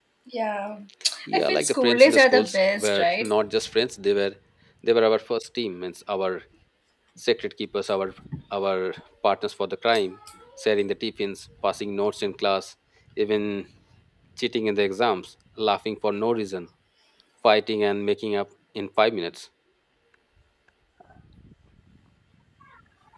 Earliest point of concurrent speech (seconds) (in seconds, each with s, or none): 1.3 s